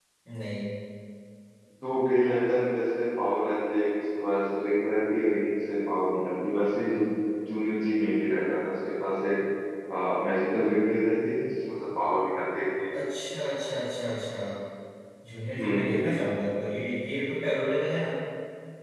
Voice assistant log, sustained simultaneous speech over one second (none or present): none